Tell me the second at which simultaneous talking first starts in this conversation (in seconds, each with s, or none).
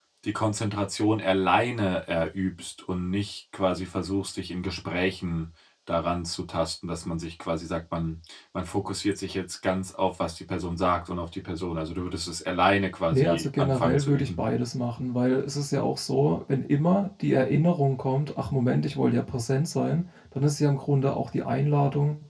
13.1 s